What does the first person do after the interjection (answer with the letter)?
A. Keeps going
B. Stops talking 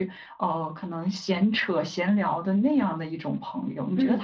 A